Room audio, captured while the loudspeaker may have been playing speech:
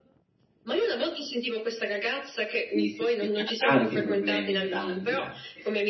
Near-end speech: present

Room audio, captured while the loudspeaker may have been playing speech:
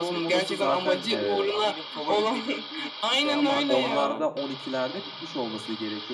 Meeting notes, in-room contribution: present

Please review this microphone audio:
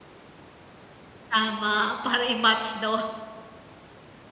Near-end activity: present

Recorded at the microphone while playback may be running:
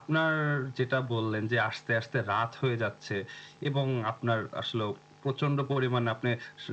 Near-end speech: none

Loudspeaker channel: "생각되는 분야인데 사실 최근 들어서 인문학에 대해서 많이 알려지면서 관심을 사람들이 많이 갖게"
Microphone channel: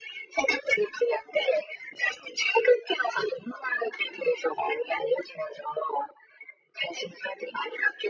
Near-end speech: none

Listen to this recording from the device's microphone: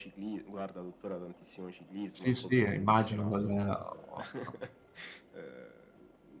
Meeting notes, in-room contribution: present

